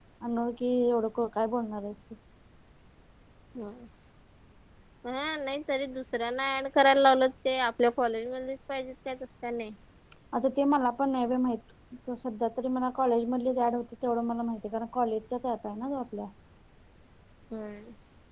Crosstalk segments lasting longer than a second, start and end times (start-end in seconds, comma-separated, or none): none